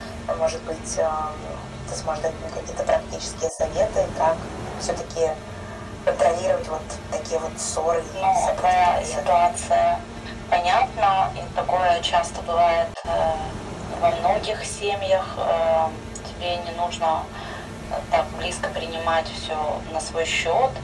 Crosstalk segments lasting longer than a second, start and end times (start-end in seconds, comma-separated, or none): 8.1-9.4